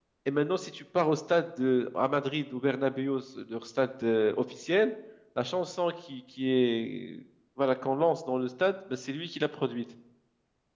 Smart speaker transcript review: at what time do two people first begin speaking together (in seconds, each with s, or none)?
none